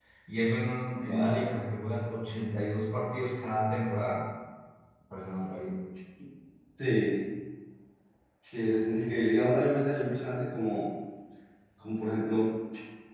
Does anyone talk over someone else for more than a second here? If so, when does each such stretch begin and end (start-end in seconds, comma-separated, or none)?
none